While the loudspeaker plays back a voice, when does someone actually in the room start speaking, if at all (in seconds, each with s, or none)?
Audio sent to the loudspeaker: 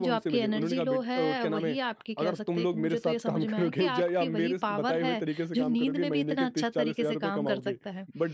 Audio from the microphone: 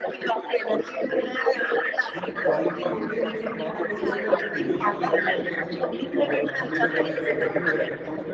2.1 s